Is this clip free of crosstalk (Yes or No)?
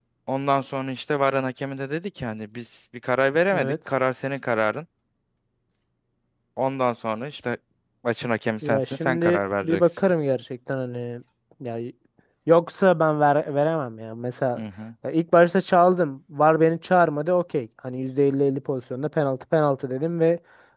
No